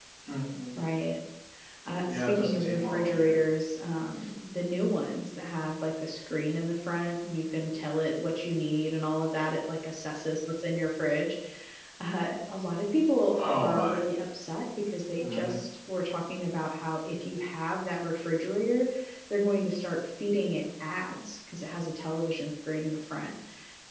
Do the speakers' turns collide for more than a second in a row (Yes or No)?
Yes